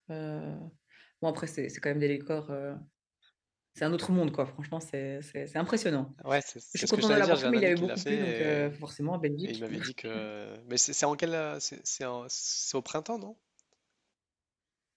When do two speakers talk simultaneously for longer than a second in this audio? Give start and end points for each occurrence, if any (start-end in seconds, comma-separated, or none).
6.7-8.6